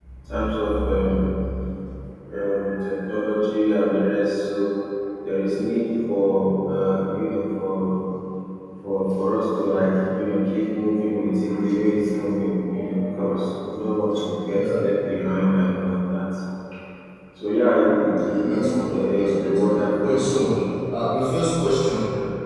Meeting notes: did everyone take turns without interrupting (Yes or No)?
No